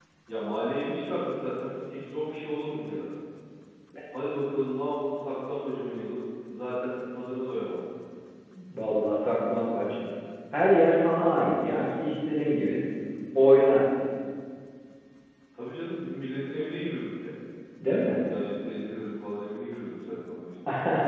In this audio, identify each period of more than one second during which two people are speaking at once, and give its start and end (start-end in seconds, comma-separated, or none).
none